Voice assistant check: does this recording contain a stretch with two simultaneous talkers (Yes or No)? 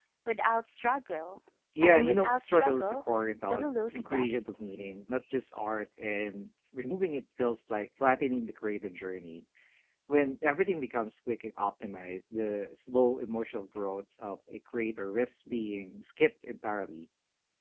Yes